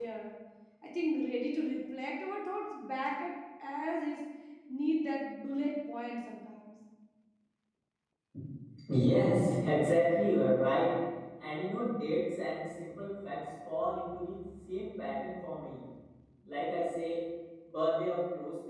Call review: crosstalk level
none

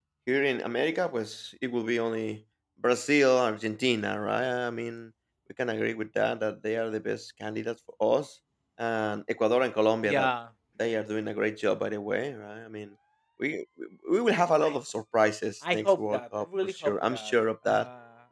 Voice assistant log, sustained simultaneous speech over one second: present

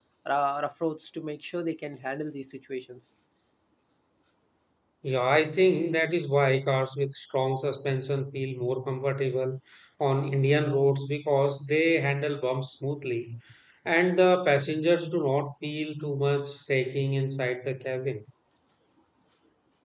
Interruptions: none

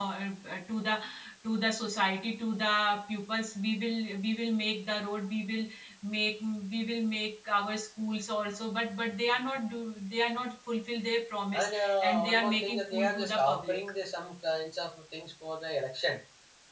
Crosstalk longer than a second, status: present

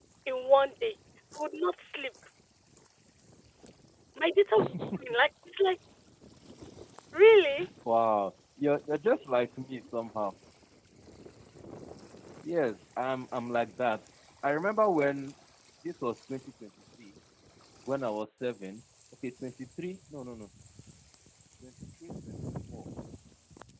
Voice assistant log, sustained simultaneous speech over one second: none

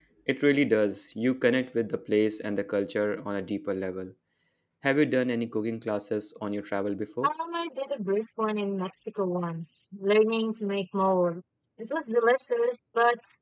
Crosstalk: none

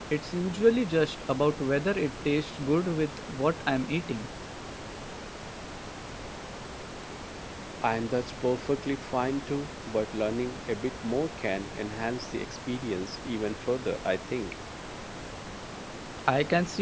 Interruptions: none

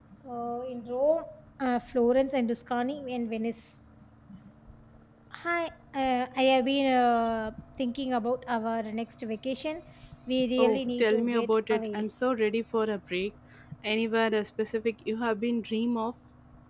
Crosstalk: present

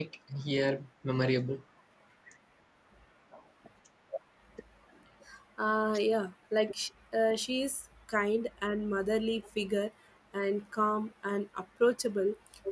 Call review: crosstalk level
none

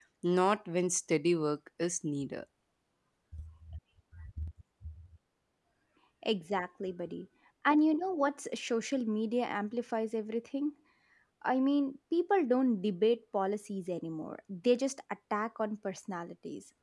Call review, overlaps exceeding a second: none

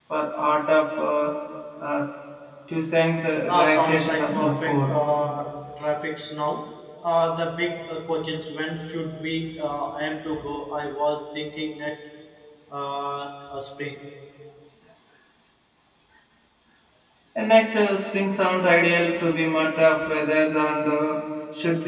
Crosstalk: present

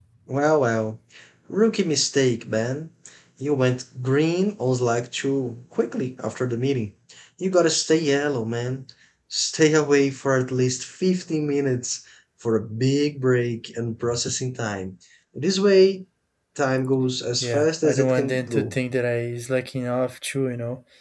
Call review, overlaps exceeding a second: present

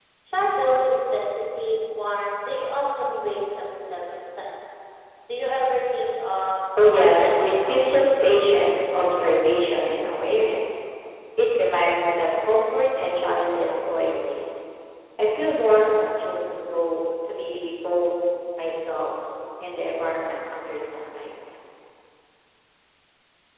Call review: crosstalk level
present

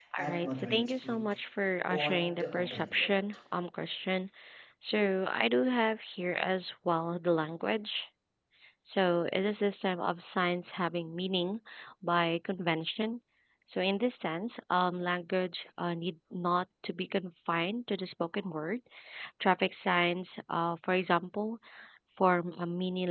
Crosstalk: present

